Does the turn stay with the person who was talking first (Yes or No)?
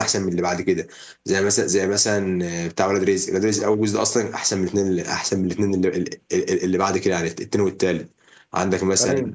Yes